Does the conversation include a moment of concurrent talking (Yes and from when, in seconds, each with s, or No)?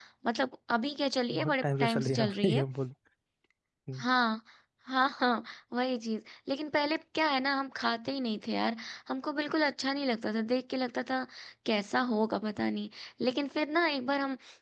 Yes, from 1.3 s